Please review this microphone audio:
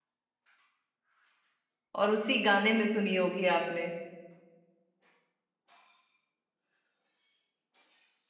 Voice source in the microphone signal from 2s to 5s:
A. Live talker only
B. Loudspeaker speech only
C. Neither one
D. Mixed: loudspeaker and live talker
A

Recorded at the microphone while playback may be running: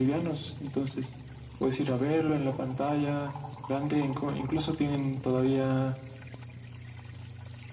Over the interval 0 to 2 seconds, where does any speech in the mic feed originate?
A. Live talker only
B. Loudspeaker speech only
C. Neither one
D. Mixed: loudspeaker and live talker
B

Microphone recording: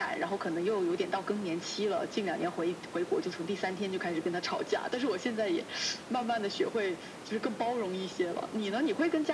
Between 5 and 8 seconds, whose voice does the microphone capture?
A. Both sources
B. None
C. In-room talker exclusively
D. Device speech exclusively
D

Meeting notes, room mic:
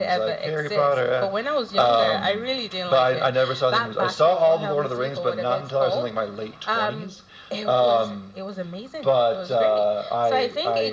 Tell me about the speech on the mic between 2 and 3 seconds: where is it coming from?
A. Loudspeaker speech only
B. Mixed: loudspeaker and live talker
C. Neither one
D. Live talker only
A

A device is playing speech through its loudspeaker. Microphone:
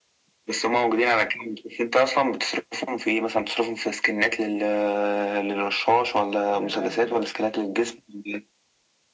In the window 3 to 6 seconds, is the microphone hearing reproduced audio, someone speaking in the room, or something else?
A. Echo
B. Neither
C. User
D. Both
A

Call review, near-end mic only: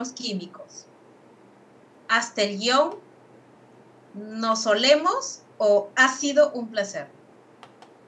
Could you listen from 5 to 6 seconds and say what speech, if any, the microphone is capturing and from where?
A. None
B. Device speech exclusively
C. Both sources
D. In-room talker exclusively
D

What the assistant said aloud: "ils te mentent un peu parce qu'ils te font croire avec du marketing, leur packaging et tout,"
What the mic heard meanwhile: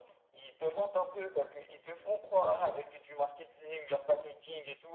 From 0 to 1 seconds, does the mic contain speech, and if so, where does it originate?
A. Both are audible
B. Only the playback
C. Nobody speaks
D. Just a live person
B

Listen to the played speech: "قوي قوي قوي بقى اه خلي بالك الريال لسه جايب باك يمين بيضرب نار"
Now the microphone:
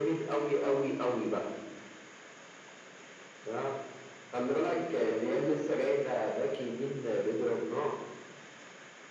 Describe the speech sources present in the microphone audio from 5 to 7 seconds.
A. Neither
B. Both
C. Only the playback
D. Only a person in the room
C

